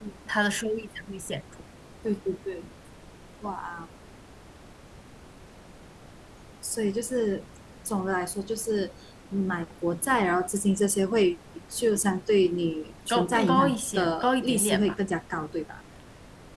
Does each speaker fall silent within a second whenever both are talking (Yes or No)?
No